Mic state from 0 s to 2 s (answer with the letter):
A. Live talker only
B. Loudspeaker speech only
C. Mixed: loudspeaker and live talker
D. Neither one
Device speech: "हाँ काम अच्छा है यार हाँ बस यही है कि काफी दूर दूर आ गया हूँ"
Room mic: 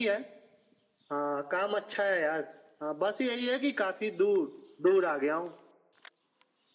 B